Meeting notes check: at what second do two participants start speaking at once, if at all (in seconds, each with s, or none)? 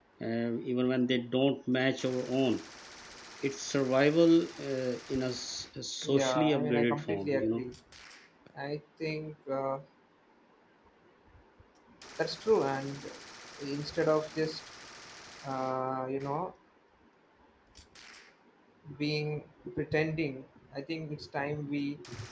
6.0 s